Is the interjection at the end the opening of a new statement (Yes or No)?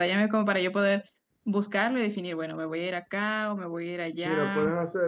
Yes